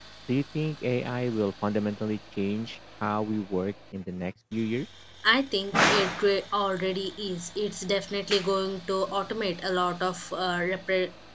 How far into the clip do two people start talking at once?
none

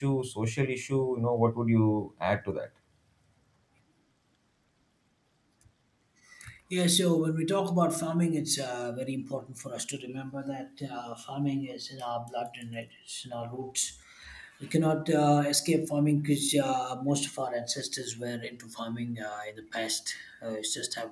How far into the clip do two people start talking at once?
none

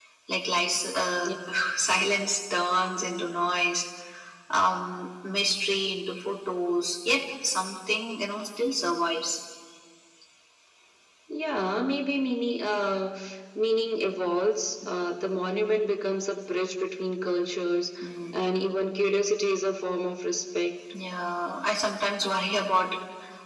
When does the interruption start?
none

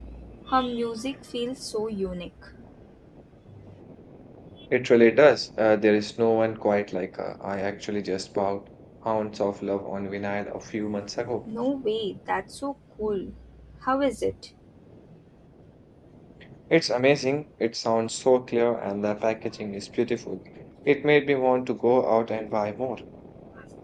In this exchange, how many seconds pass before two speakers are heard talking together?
none

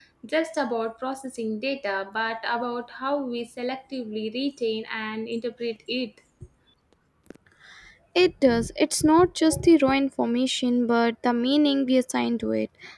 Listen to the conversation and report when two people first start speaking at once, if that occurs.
none

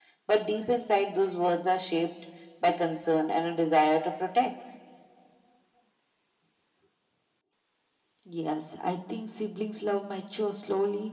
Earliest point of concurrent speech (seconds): none

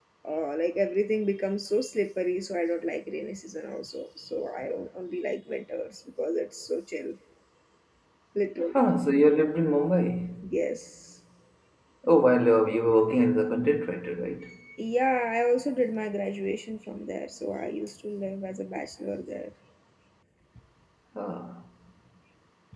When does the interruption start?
none

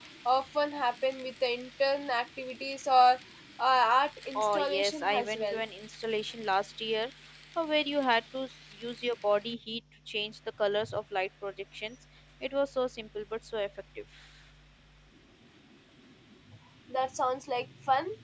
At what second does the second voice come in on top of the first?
4.3 s

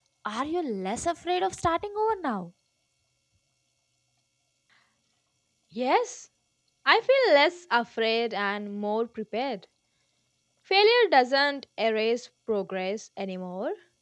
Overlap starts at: none

